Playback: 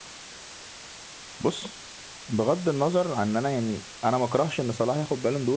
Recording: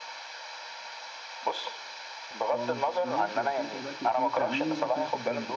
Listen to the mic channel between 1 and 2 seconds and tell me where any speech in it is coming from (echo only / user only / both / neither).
echo only